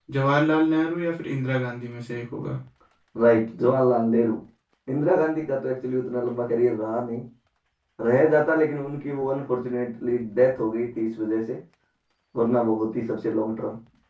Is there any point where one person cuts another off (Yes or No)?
No